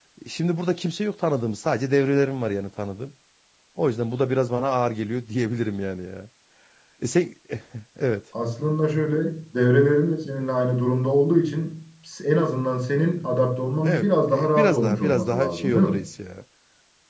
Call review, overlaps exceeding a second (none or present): present